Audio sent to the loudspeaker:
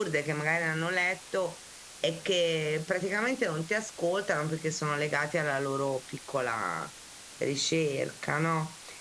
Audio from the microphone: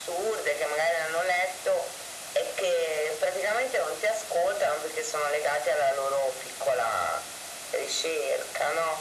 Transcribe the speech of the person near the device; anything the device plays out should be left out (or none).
none